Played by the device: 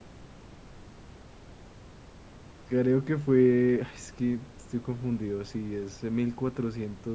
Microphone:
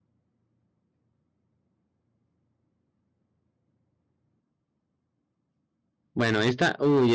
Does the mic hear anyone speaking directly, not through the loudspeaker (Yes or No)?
Yes